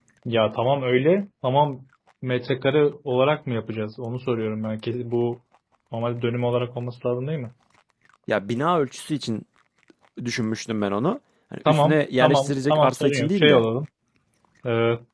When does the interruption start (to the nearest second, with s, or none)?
12 s